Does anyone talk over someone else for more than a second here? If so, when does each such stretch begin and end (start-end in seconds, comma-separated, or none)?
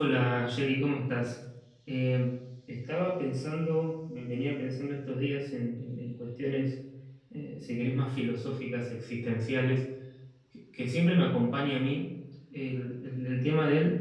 none